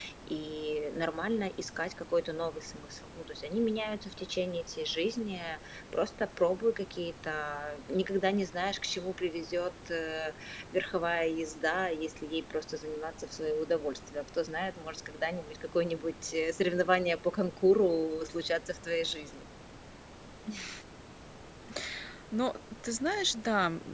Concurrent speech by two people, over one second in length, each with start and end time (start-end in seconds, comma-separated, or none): none